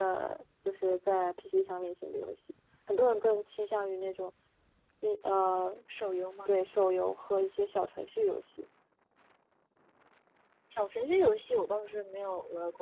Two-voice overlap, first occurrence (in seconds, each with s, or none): none